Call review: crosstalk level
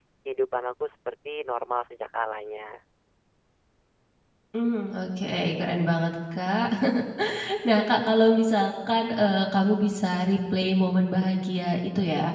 none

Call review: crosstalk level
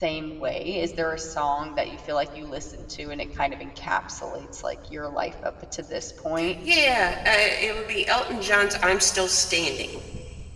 none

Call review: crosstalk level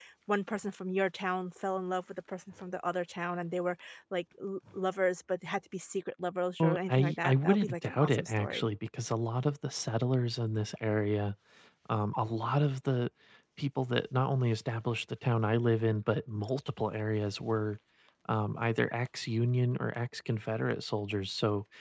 present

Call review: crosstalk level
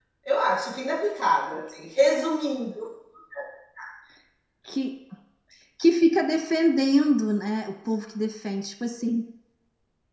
none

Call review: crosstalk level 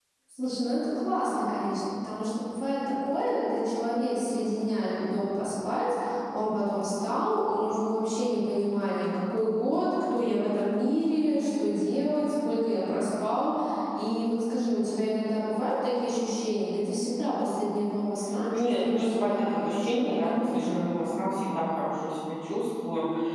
present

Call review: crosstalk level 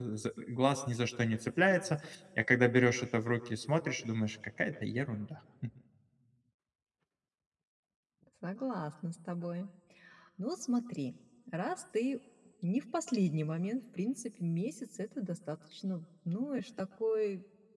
none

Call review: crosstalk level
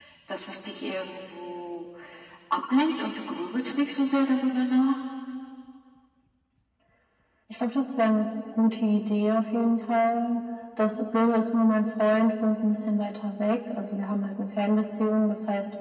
none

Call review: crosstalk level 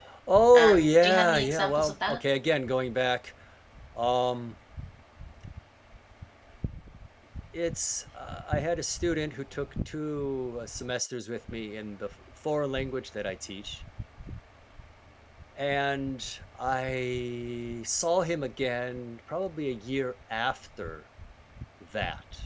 present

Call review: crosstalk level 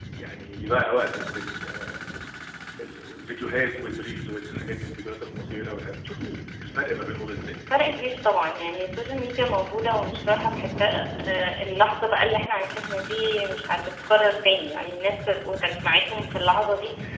none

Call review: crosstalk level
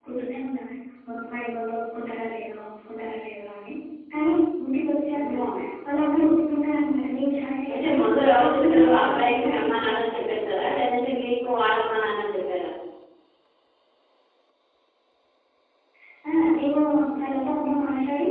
present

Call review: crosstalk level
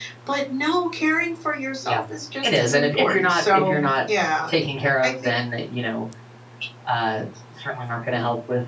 present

